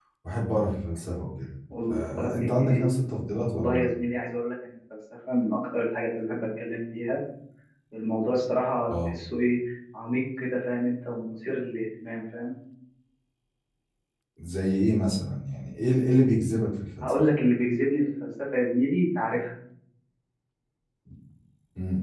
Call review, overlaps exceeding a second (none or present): none